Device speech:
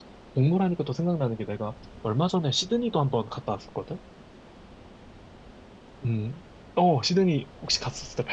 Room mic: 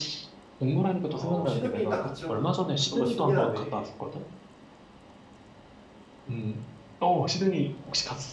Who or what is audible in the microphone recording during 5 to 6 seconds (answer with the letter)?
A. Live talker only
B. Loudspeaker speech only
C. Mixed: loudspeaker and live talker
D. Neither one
D